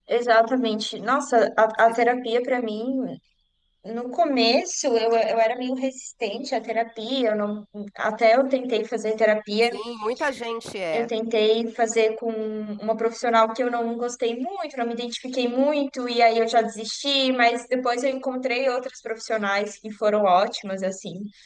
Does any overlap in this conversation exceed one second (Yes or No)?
No